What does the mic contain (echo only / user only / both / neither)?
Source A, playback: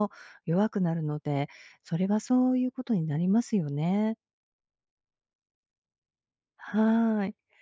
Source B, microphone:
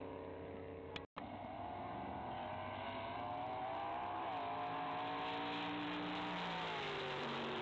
neither